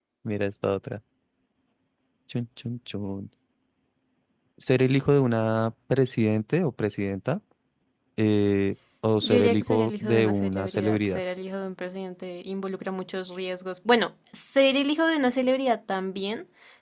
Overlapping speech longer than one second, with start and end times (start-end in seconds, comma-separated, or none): 9.2-11.2